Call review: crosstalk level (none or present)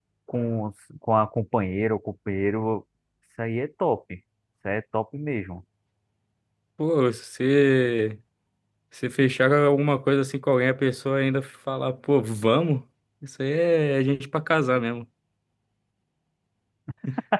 none